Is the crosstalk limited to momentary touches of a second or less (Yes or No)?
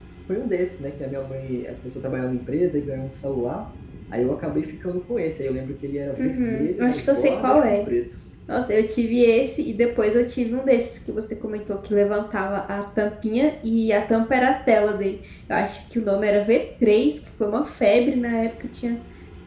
No